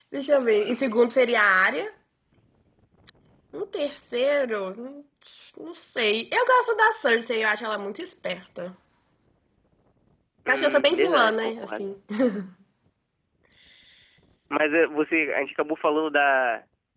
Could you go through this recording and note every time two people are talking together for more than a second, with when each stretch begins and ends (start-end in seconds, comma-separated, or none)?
10.5-11.8